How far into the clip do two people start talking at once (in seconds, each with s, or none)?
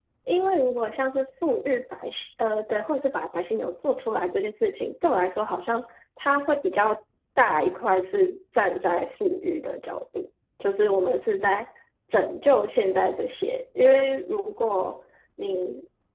none